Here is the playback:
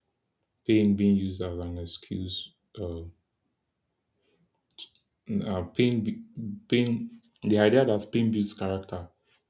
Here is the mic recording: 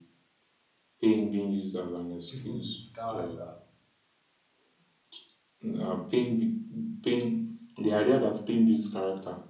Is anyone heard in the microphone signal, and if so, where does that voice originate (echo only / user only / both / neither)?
both